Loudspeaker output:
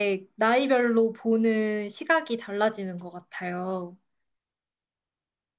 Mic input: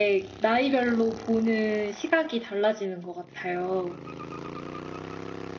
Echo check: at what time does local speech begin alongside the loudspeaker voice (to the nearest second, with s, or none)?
none